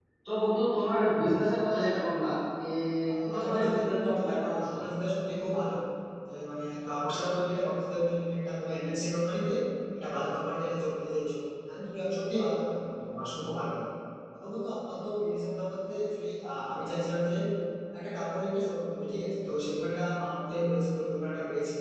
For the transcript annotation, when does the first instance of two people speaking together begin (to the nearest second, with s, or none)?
3 s